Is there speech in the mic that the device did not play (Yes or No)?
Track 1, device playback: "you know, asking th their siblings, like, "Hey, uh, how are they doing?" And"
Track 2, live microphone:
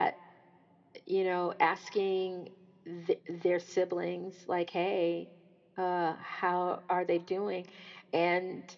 No